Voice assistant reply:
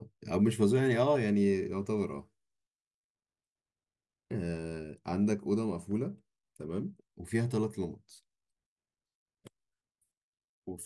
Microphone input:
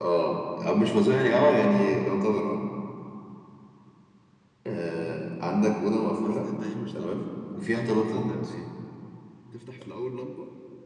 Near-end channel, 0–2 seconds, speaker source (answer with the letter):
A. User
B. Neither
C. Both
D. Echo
D